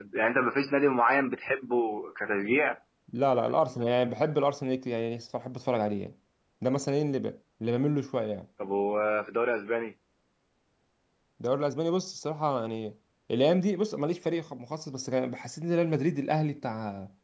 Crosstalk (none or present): none